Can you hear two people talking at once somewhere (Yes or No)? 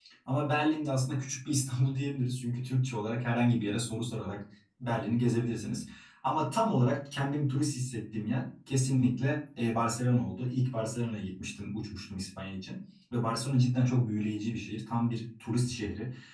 No